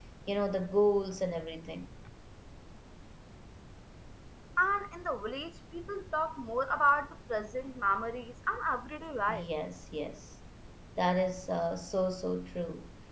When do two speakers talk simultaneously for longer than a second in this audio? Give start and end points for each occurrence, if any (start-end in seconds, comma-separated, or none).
none